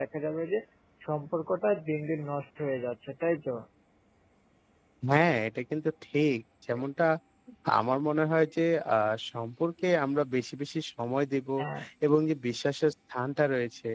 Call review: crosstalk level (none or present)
none